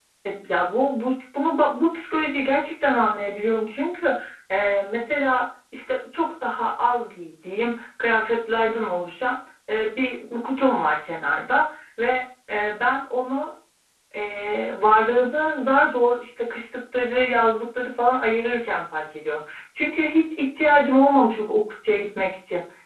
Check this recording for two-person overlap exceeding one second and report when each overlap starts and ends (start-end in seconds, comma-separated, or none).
none